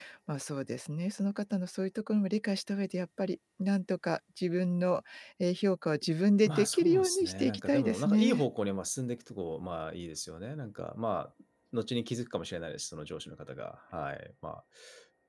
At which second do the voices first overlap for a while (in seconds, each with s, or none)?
6.4 s